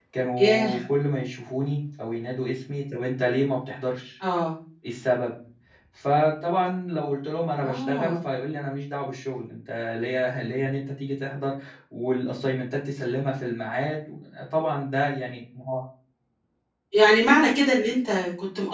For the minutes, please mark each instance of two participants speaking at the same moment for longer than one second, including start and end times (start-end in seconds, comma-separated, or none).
none